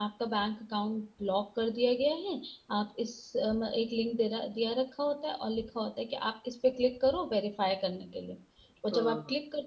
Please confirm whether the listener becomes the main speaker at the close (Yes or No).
No